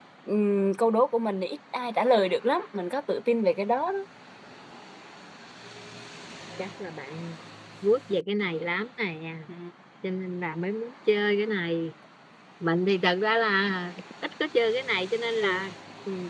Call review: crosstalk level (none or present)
none